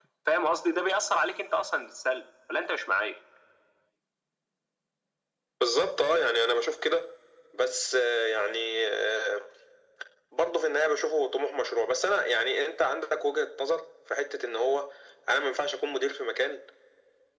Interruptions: none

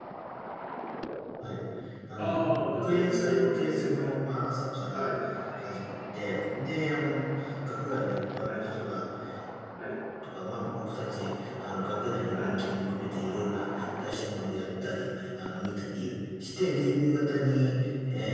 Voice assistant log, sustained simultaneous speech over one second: present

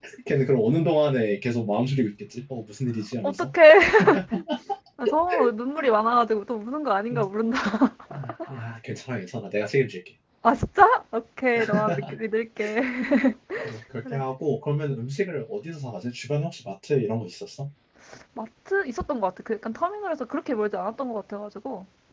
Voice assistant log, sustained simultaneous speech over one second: none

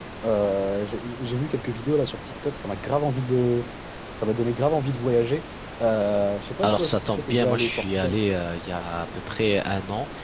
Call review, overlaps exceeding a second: present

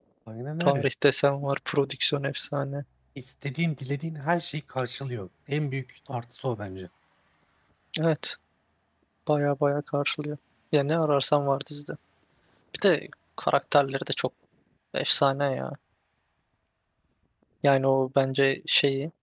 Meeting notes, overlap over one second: none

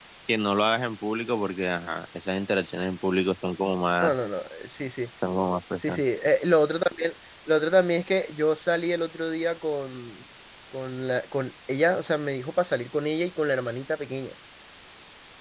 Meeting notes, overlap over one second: none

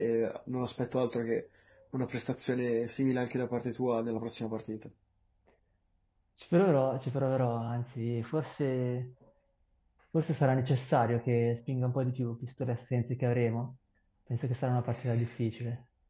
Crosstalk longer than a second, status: none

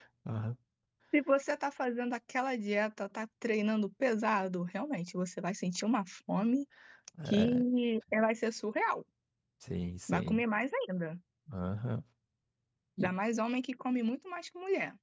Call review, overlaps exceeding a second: none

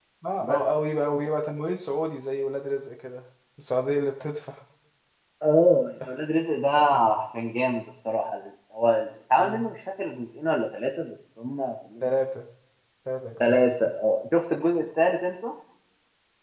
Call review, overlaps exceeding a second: none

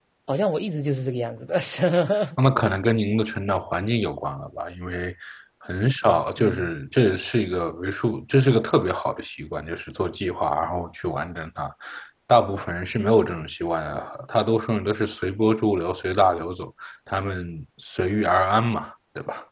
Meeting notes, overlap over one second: none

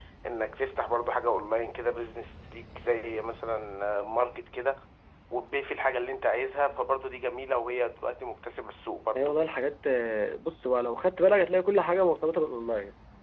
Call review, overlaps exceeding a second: none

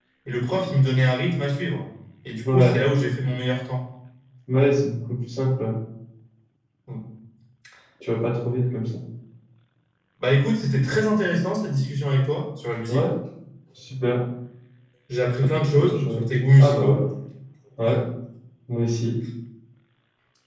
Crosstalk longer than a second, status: present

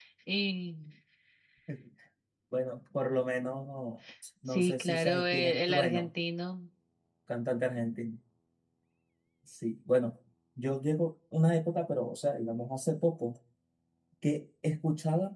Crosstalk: present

